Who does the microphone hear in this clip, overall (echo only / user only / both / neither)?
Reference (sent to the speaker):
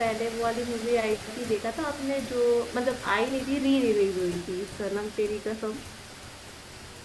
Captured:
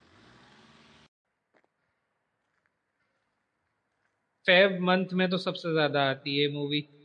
user only